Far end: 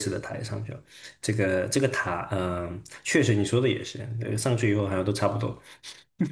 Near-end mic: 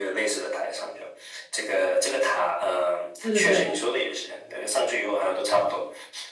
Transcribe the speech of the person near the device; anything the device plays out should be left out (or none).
对对对，